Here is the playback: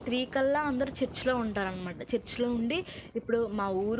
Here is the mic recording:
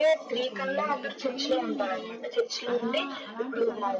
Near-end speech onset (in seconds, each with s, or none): 0.4 s